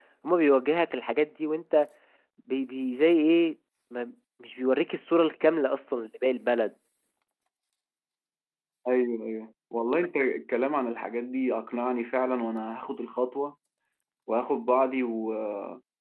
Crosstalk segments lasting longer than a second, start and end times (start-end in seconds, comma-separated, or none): none